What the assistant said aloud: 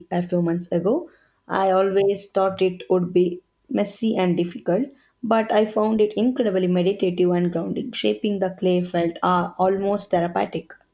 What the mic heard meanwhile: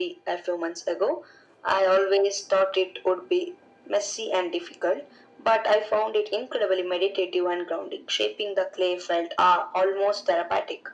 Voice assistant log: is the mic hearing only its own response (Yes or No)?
Yes